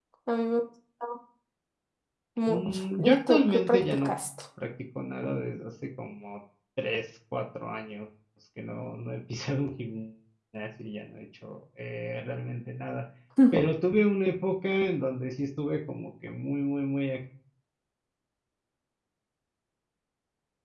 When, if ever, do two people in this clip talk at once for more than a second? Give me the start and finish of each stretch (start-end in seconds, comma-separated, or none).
2.5-4.1